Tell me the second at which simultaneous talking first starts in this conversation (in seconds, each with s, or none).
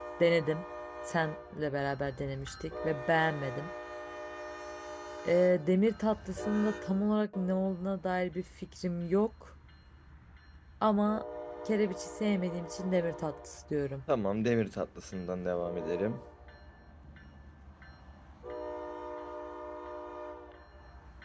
none